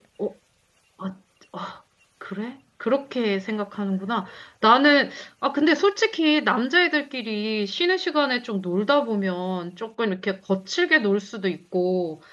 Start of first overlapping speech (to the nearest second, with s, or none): none